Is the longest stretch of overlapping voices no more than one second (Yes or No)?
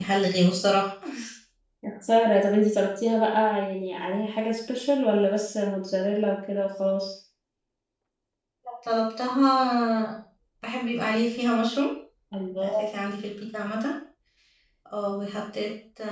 Yes